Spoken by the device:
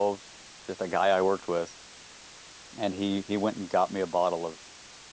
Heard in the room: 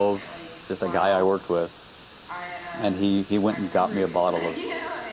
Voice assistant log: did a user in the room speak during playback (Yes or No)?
Yes